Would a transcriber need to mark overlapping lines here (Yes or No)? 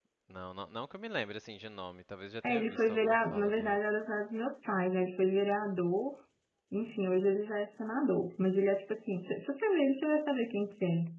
Yes